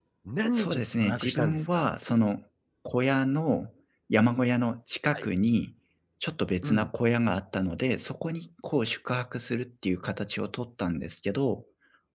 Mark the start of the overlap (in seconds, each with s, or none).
0.5 s